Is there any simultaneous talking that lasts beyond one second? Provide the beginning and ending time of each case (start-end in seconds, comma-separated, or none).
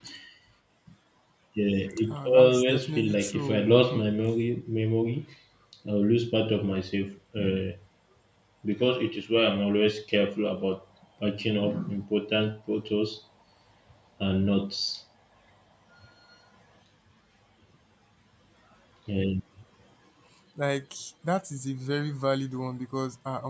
2.1-4.0